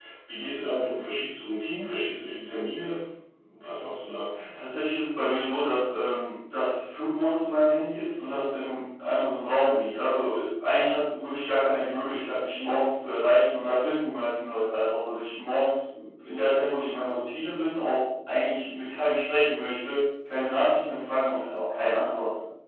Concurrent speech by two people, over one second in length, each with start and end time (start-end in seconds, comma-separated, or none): none